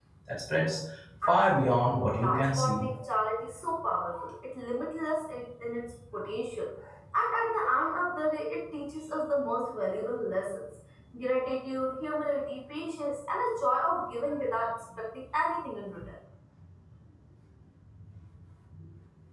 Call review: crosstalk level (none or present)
present